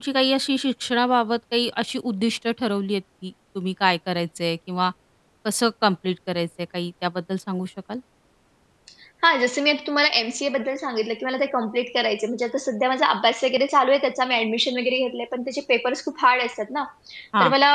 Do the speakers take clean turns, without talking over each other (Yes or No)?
Yes